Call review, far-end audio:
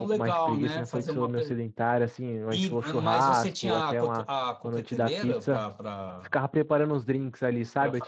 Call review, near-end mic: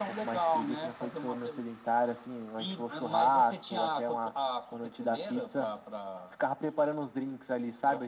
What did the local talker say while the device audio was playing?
none

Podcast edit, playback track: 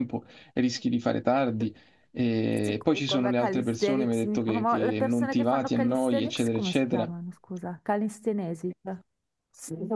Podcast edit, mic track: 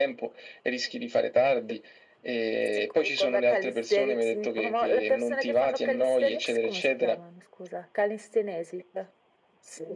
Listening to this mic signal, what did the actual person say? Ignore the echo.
none

